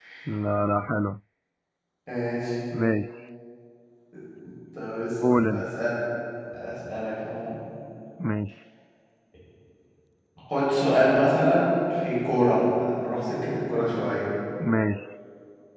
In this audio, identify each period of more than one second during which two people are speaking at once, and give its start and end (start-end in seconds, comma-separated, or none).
none